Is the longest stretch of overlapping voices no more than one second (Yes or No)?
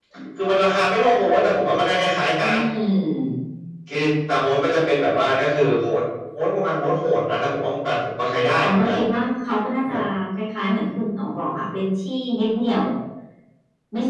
Yes